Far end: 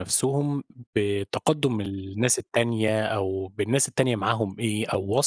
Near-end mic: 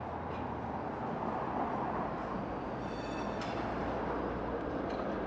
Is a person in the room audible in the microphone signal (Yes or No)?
No